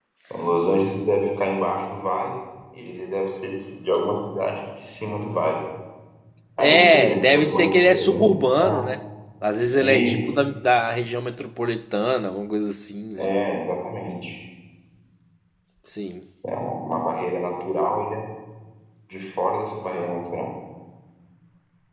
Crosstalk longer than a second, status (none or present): present